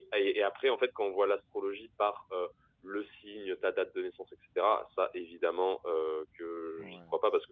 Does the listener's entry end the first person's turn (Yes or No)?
No